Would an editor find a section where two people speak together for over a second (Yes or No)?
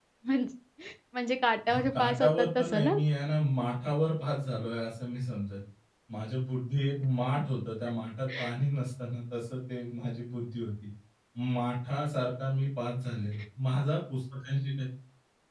Yes